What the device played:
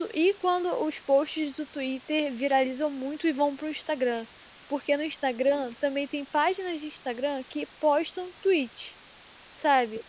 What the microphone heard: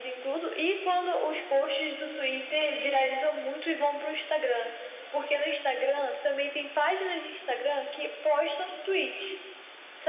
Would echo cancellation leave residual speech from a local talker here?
No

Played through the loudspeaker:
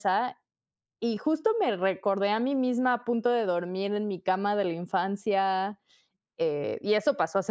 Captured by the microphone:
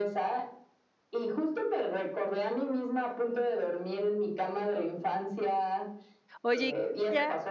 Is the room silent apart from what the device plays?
No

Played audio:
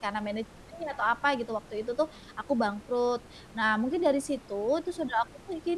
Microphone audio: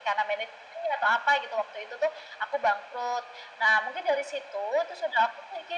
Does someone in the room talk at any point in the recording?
No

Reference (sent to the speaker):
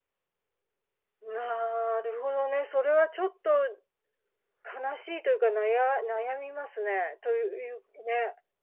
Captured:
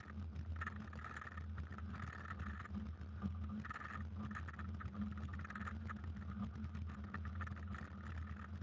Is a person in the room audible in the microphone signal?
No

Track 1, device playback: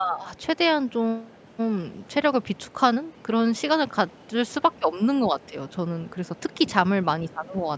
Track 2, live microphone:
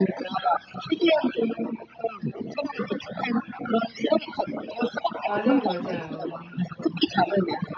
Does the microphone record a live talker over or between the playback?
Yes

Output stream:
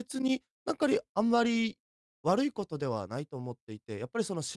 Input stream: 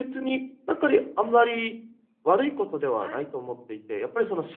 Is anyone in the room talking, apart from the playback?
Yes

